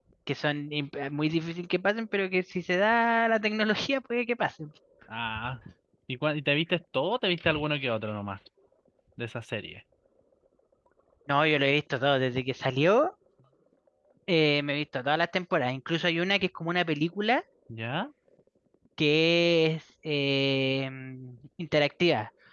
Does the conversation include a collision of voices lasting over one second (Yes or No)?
No